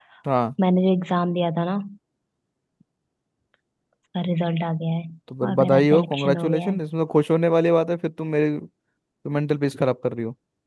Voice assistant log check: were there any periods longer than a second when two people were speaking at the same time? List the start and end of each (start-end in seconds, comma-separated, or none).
5.5-6.8